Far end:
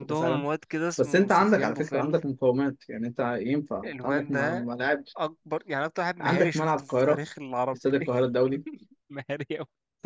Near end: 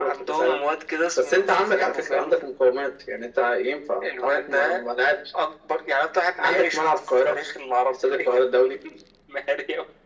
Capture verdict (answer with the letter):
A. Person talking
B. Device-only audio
B